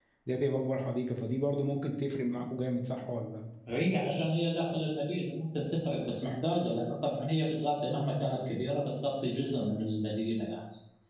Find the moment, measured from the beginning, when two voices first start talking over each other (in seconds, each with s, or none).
none